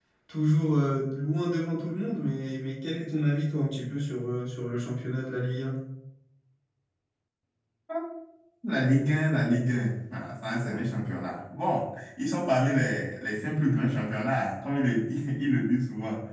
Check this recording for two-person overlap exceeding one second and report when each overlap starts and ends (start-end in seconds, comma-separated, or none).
none